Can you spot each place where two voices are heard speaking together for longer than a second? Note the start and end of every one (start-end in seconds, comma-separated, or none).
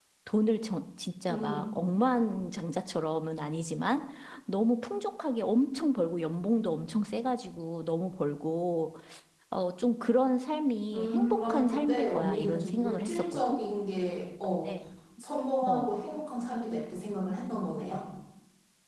10.9-13.6